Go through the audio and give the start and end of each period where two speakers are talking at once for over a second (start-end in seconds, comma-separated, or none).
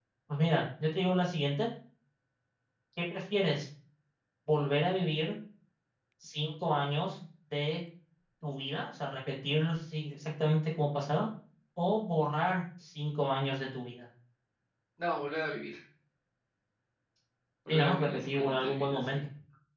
17.7-19.2